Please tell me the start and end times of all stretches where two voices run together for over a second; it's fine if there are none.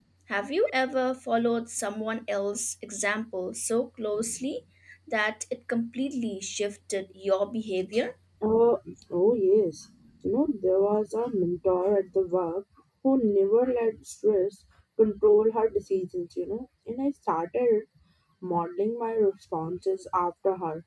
none

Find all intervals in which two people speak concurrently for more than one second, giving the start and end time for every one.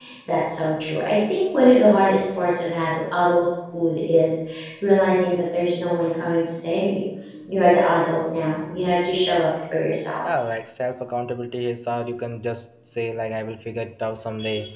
none

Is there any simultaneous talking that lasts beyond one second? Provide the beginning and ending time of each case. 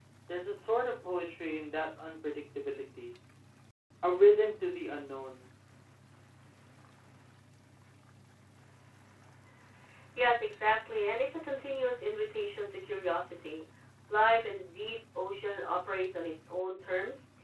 none

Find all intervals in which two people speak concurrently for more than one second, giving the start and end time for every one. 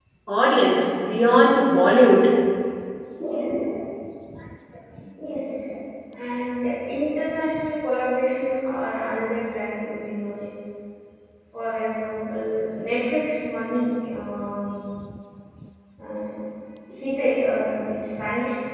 none

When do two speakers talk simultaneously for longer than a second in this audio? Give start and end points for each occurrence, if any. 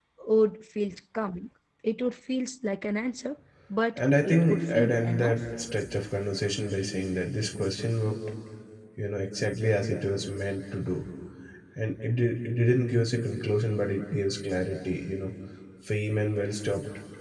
4.0-5.4

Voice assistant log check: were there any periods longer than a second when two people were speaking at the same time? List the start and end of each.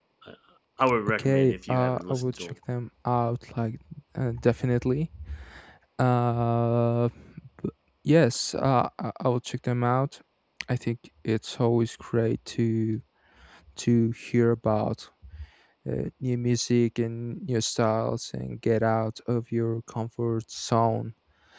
1.2-2.5

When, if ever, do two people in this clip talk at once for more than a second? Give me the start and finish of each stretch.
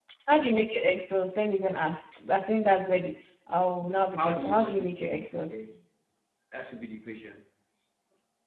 4.2-5.6

